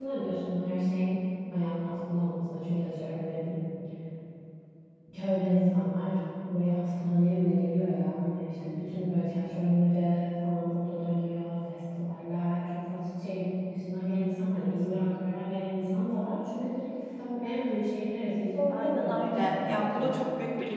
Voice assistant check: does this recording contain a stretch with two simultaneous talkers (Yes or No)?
Yes